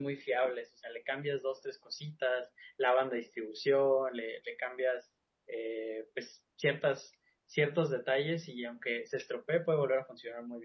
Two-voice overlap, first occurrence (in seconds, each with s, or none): none